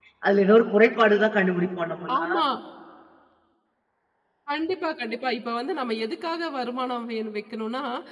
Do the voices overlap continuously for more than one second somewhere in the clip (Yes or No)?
No